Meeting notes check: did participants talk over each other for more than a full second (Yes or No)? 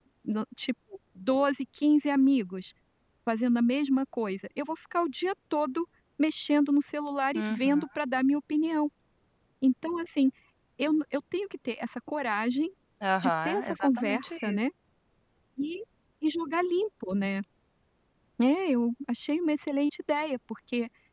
Yes